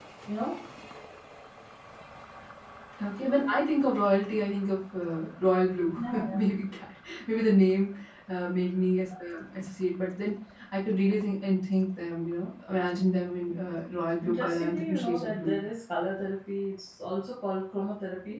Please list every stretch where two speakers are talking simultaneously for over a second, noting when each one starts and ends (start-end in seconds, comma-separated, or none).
14.3-15.6